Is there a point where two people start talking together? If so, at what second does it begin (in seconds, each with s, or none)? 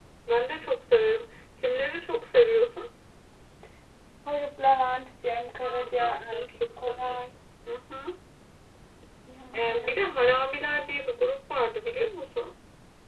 5.6 s